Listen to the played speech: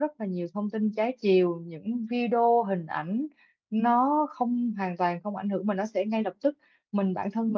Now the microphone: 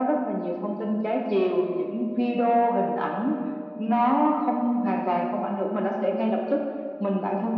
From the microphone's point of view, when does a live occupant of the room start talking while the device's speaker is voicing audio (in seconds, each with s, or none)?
none